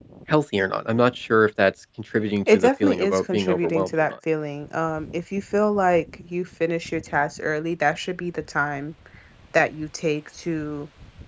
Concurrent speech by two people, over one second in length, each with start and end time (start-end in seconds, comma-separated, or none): 2.5-4.2